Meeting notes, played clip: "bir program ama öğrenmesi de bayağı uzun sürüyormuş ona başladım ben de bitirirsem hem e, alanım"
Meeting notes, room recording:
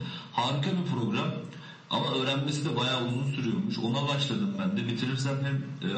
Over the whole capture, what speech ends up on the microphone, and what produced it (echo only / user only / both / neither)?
echo only